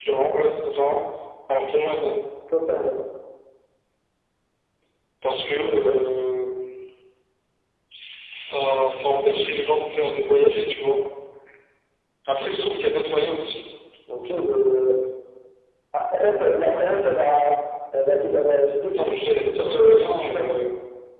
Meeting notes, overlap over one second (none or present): present